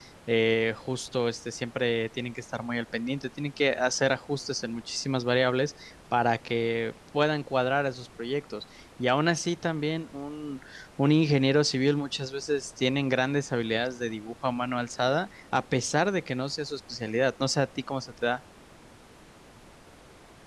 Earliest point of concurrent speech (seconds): none

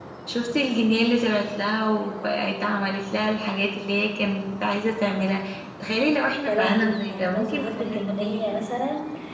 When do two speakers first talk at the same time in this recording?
6 s

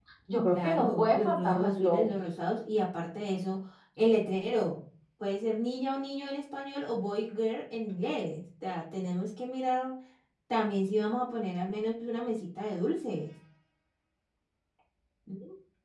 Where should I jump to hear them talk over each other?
1 s

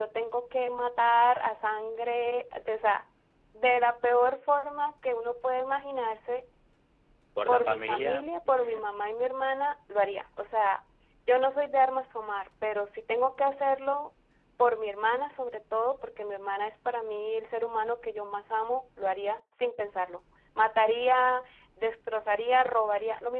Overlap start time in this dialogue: 7 s

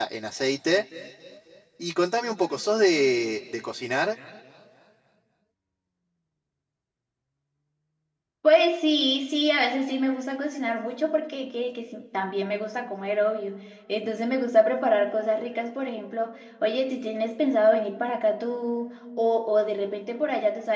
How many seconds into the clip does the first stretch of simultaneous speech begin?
none

